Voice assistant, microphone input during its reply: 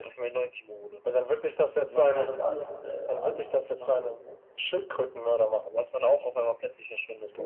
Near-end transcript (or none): die machen halt aus alles, was du, alles machen die Essen, ne?